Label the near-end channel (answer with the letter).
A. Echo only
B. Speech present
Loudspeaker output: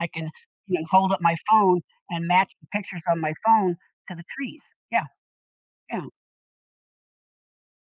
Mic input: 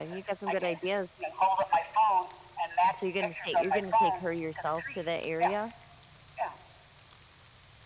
B